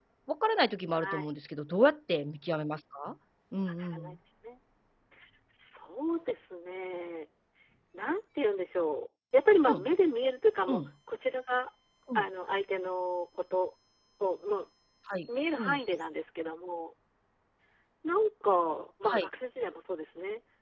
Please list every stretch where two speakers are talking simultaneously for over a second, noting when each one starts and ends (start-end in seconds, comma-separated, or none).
none